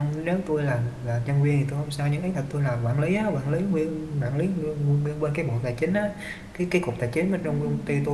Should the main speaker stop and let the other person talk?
No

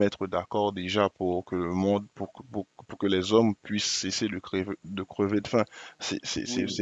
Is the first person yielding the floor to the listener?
No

